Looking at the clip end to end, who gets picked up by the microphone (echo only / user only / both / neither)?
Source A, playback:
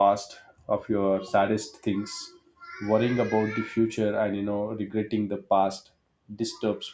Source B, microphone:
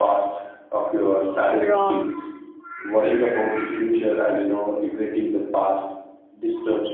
both